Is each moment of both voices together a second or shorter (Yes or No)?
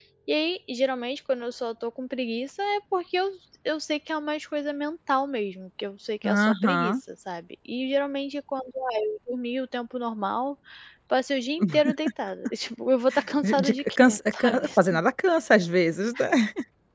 No